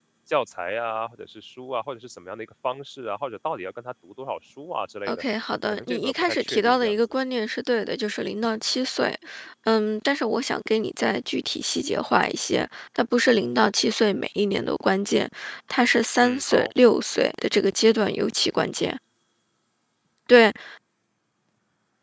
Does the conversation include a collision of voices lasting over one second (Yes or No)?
Yes